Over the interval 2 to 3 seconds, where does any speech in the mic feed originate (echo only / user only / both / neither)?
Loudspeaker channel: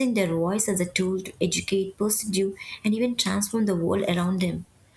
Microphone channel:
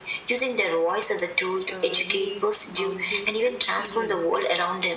both